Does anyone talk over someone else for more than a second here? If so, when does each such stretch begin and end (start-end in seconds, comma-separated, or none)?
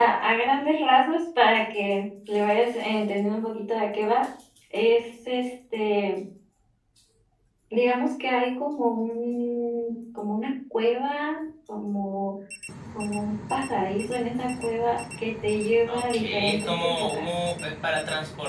15.9-17.3